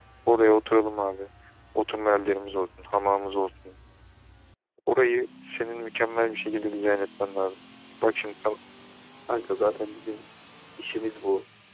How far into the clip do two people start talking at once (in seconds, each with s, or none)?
none